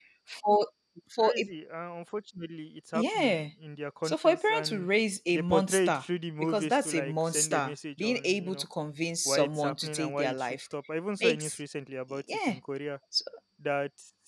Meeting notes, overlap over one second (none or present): present